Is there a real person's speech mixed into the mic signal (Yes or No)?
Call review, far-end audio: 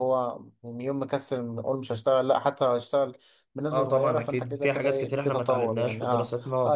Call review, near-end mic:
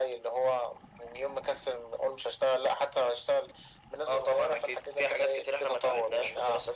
No